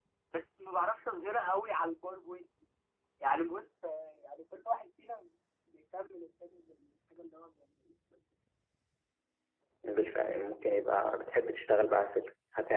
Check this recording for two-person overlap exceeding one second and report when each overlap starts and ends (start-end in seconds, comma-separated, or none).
none